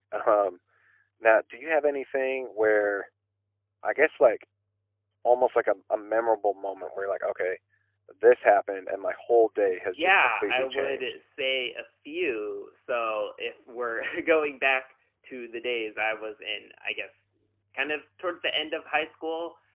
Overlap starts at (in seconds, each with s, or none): 9.9 s